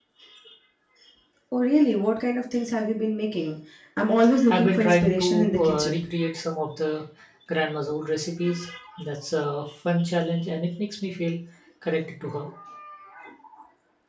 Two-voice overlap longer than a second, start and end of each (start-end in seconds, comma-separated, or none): 4.5-6.0